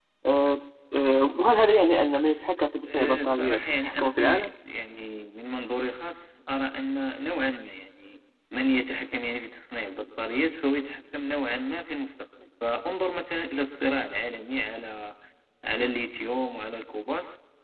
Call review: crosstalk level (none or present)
present